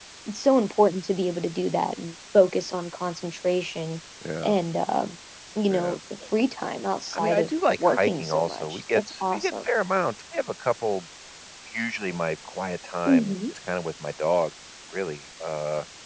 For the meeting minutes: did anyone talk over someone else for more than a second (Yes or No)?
Yes